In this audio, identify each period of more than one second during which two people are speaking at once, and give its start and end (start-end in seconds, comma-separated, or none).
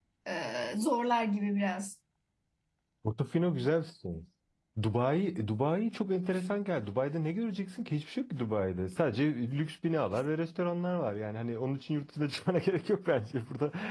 none